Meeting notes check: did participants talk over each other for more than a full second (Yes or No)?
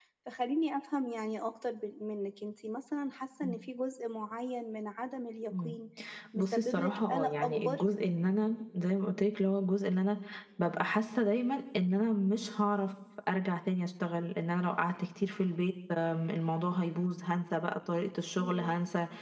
Yes